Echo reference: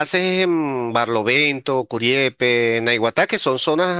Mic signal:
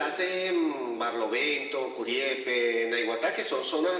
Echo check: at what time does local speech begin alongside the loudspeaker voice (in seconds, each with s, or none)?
none